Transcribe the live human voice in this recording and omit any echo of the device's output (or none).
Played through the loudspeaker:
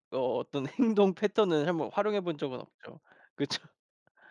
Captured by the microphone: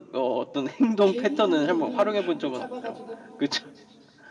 개미란 개미는 다 끄 잡아 가지고